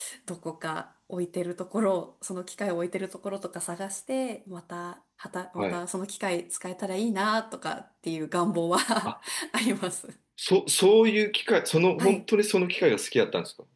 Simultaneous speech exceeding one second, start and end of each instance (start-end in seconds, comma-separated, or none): none